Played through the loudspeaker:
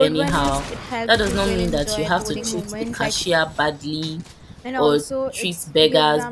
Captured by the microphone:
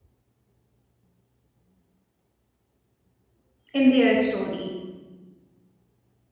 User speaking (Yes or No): Yes